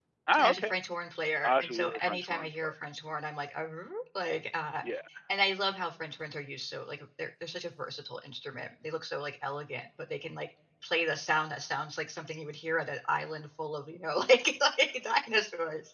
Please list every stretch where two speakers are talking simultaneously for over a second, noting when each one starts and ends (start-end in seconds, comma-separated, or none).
1.4-2.7